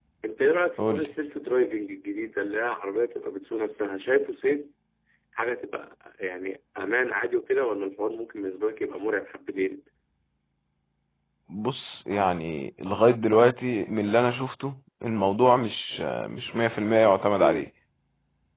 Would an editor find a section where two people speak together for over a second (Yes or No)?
No